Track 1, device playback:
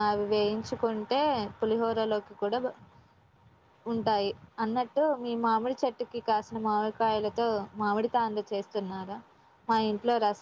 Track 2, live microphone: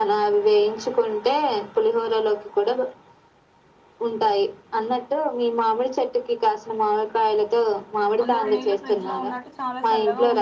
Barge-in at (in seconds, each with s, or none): 8.2 s